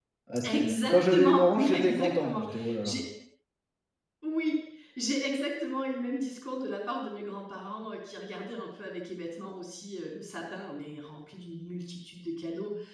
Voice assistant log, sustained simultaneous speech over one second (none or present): present